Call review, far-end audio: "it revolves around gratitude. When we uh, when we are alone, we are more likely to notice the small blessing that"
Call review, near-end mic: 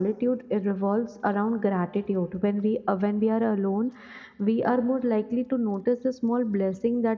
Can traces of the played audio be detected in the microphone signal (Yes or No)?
Yes